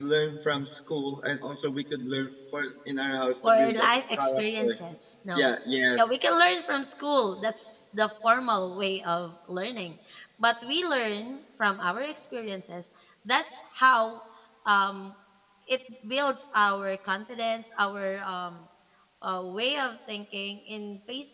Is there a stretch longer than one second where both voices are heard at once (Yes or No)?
Yes